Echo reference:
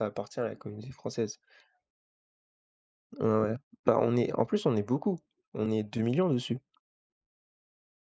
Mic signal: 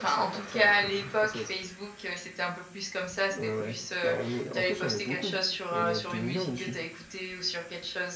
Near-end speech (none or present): present